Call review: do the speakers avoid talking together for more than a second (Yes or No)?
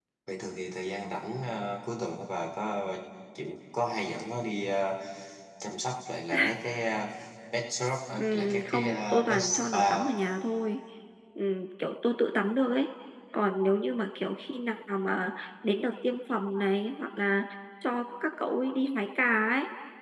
No